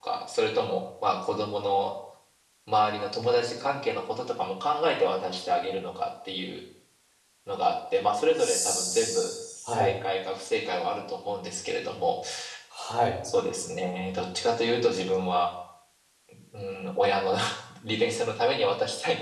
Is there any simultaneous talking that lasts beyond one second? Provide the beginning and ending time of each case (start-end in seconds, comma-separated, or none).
8.4-9.9